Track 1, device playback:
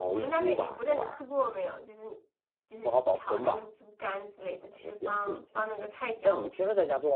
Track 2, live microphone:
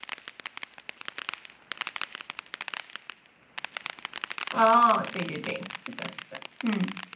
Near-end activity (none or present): present